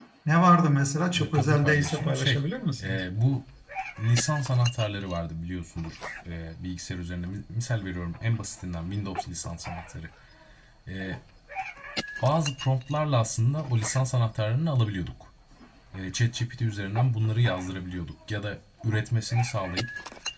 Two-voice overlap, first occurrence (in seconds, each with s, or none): 1.1 s